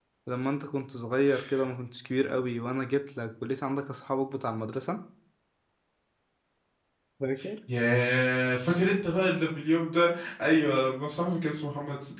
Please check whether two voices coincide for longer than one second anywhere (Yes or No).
No